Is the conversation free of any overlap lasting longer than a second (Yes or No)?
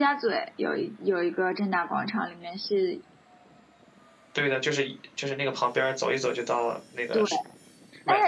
Yes